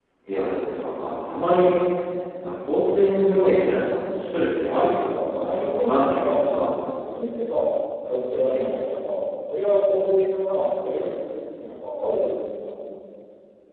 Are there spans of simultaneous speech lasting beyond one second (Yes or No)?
Yes